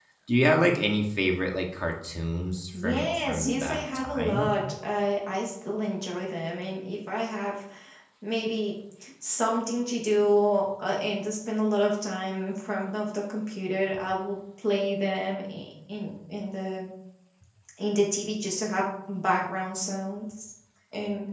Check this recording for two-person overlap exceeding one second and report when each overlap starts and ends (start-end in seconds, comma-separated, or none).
2.7-4.5